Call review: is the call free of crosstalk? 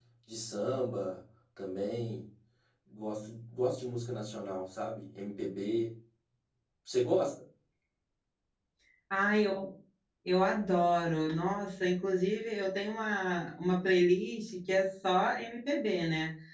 Yes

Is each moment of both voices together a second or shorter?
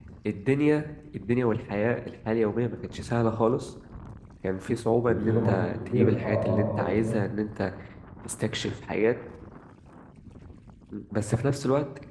No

